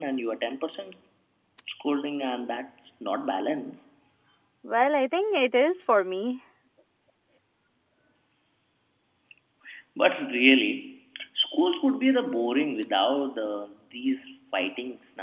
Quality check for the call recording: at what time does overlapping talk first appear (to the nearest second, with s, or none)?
none